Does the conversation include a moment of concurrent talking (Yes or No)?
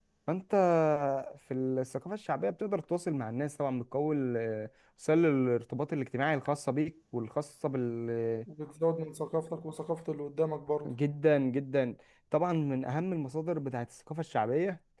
No